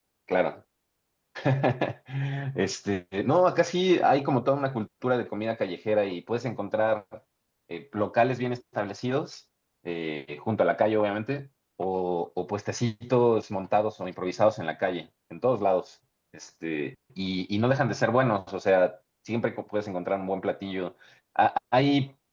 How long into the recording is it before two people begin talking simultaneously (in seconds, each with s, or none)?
none